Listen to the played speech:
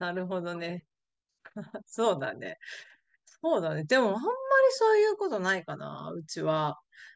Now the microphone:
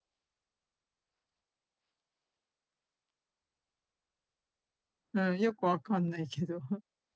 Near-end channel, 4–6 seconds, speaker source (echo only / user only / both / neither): user only